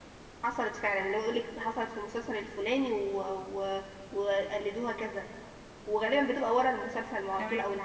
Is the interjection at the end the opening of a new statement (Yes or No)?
No